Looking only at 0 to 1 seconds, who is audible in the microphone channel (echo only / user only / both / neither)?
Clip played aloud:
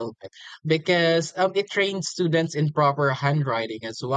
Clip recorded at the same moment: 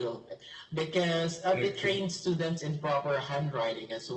echo only